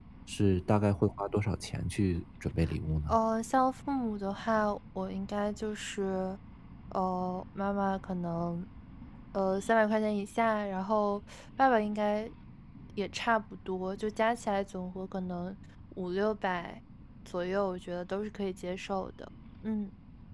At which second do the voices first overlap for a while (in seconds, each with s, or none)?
none